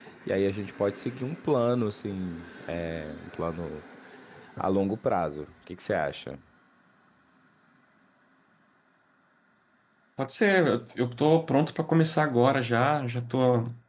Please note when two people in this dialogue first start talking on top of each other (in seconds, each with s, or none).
none